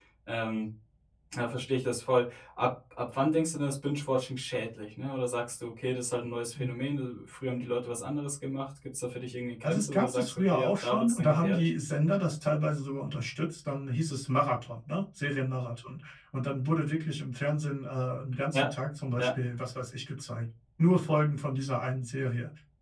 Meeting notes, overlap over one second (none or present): present